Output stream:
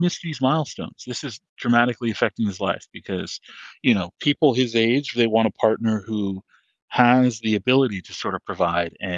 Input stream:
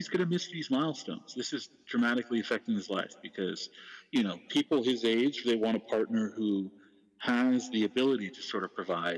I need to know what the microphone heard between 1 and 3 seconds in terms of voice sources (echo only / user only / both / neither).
echo only